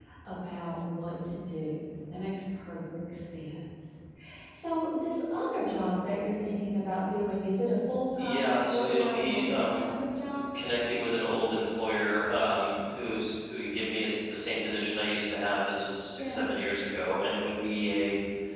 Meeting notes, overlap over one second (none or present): present